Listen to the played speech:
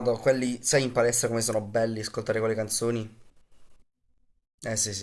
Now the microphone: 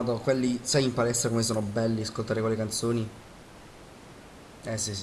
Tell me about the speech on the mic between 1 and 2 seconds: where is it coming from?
echo only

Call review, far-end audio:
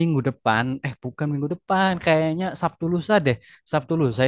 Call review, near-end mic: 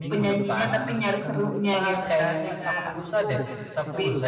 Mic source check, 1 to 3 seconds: both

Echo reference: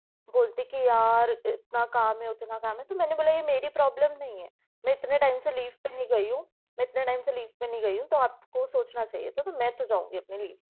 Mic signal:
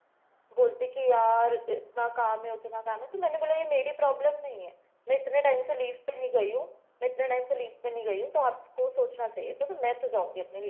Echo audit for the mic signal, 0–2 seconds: echo only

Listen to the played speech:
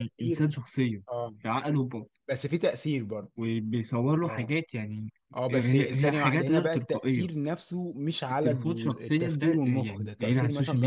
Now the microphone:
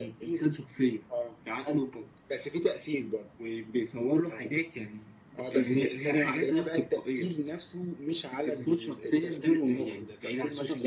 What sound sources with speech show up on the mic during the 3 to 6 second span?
echo only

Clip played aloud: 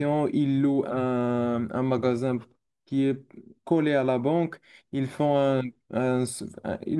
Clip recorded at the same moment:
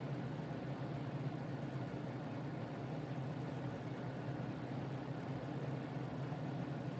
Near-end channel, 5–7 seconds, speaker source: neither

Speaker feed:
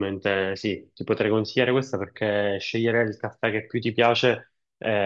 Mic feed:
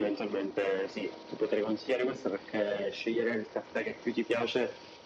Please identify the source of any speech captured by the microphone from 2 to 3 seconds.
echo only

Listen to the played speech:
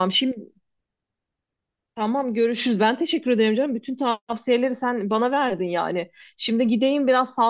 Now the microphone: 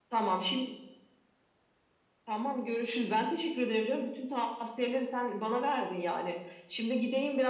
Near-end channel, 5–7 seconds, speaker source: echo only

